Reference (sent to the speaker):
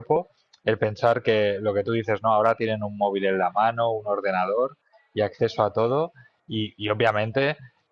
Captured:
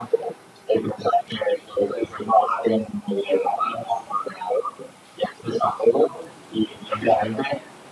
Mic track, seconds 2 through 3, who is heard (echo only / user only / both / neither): echo only